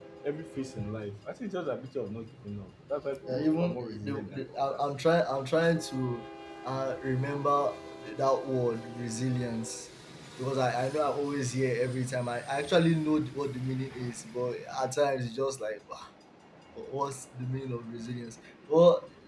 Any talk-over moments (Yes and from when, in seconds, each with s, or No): Yes, from 3.3 s